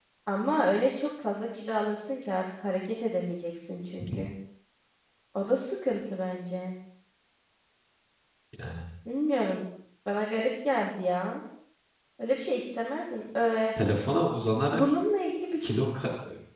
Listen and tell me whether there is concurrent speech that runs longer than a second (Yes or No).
No